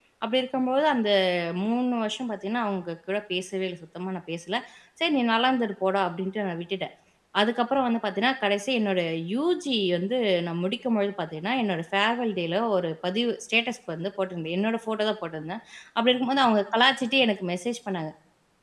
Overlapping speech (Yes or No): No